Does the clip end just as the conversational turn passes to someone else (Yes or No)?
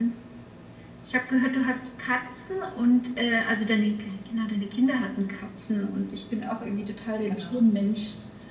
No